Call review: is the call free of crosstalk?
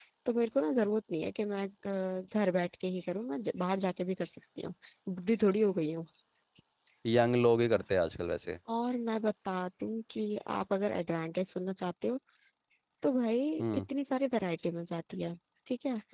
Yes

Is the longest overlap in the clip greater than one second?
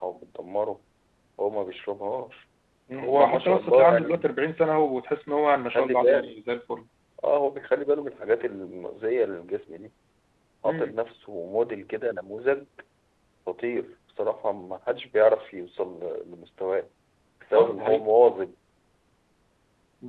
Yes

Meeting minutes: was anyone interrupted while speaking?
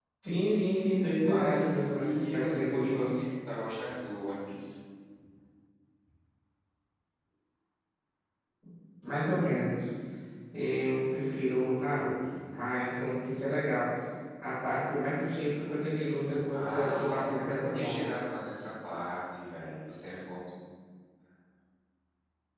Yes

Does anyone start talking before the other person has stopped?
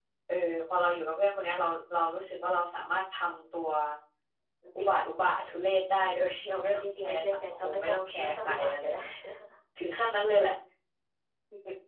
Yes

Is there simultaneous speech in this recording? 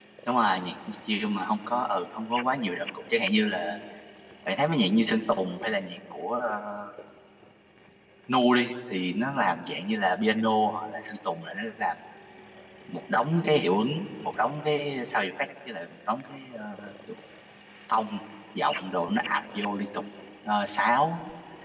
No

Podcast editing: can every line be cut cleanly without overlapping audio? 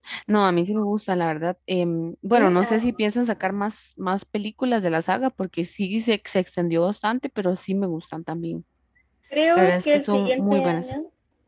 No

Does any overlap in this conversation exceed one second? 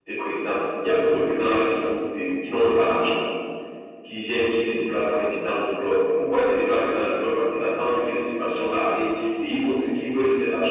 No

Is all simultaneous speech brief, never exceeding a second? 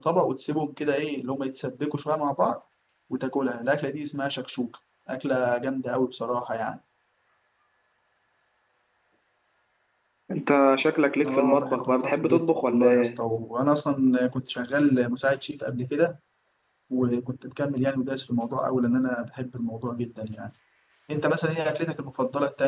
No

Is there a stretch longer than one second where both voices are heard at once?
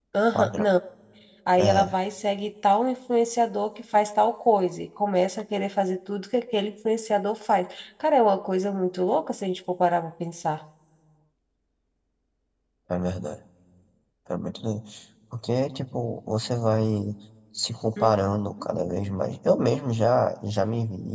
No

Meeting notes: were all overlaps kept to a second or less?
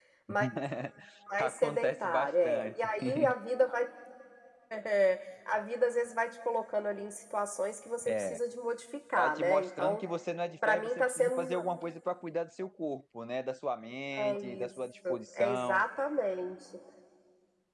No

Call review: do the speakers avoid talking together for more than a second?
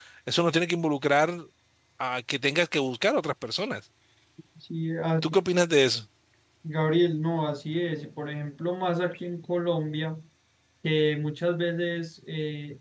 Yes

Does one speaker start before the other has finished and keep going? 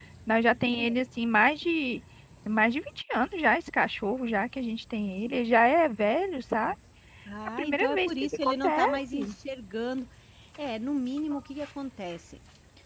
Yes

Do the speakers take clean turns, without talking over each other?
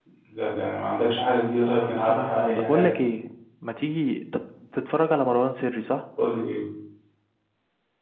No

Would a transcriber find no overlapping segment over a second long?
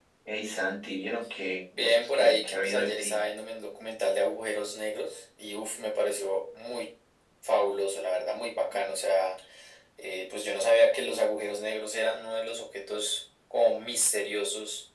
No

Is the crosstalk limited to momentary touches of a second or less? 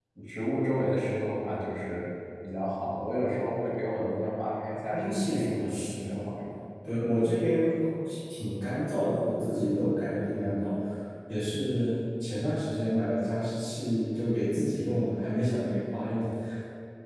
No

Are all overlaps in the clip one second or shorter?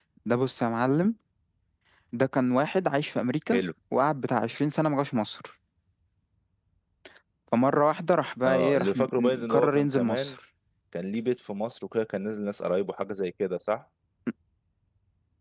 No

